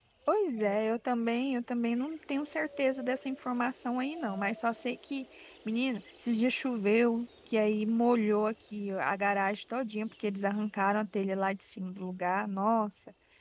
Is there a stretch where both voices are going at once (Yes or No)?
No